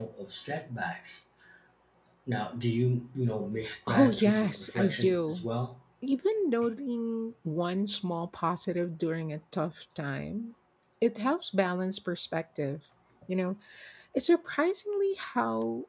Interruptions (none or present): present